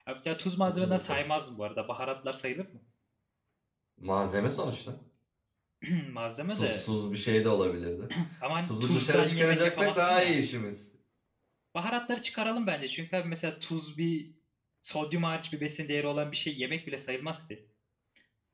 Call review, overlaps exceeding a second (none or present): present